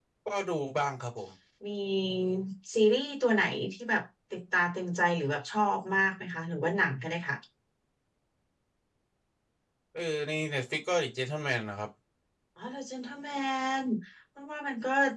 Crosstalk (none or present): none